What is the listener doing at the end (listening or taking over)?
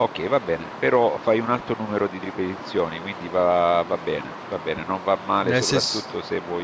listening